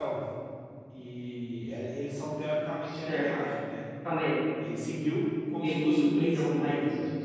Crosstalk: present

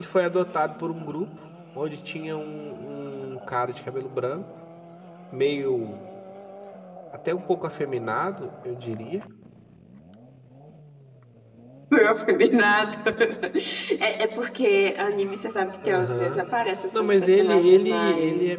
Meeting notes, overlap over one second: present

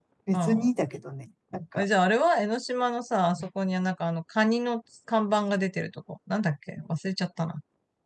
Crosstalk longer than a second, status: none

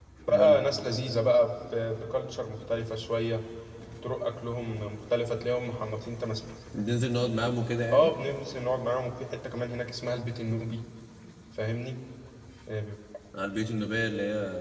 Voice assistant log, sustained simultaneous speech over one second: none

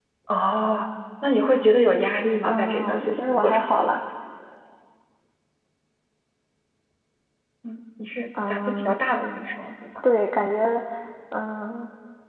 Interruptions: present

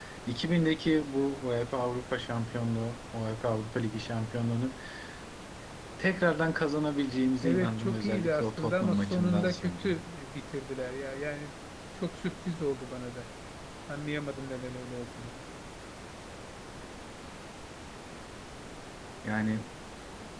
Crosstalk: present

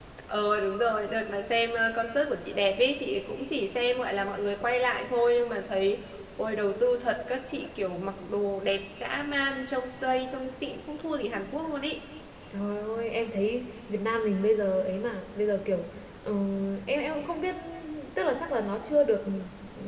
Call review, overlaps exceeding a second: none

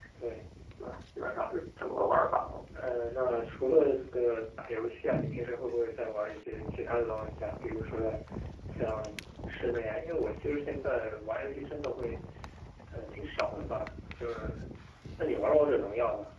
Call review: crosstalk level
none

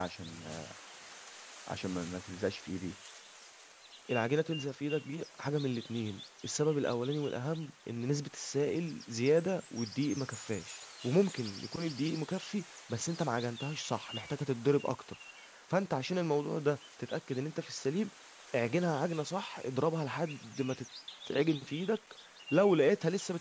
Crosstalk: none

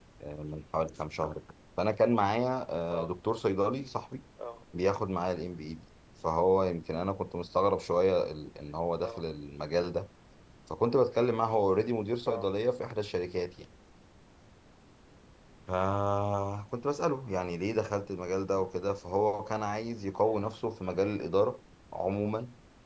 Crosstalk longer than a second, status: none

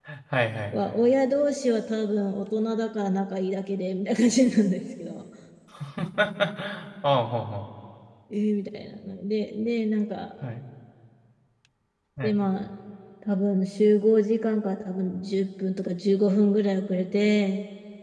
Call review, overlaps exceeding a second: none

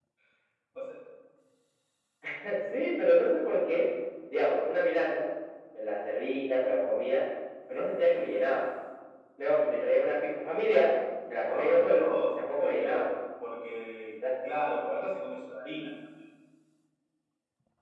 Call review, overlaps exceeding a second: present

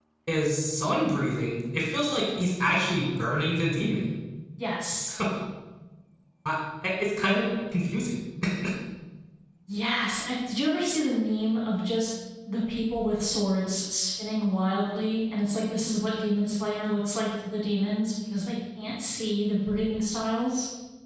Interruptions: none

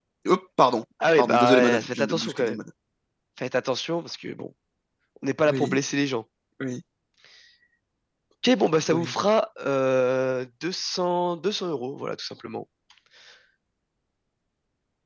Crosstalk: present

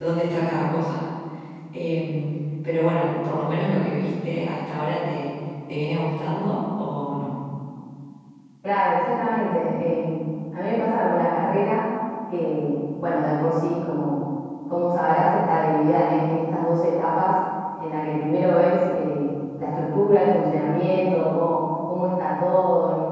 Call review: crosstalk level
none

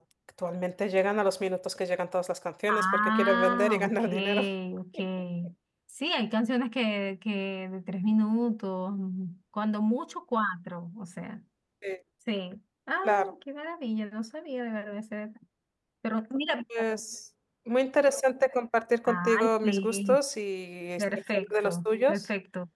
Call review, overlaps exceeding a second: present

